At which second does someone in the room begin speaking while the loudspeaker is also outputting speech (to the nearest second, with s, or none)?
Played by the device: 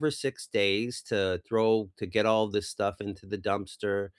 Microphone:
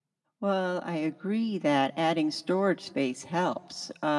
0 s